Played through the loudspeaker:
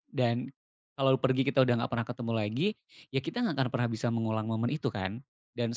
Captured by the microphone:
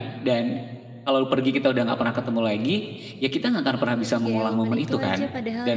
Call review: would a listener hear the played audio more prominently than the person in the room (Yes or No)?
Yes